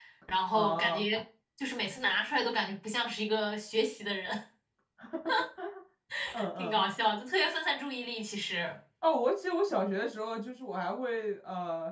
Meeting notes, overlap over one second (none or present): none